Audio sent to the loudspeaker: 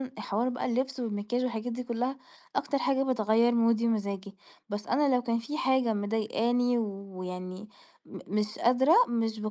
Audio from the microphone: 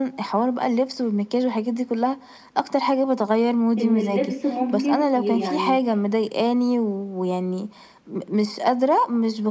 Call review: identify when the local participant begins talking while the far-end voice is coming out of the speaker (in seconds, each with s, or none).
3.8 s